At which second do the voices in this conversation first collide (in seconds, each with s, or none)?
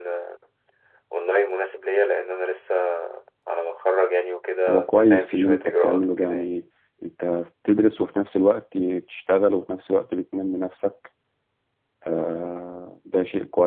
4.7 s